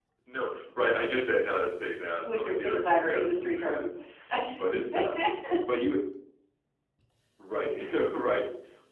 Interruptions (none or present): present